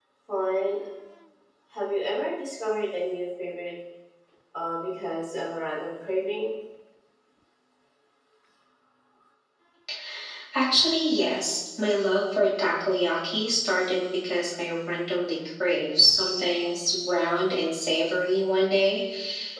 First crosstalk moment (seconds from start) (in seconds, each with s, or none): none